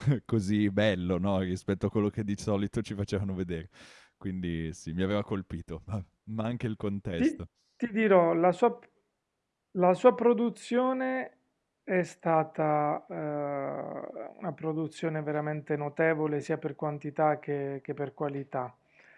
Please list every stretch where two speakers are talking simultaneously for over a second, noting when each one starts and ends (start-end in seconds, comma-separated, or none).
none